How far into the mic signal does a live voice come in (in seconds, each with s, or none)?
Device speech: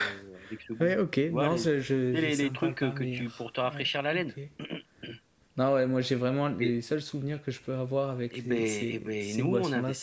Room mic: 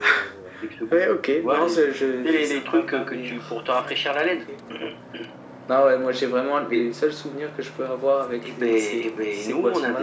none